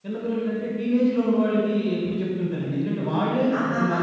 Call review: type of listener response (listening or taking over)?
listening